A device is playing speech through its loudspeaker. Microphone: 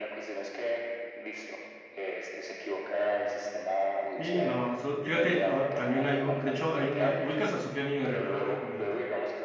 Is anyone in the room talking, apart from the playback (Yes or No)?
Yes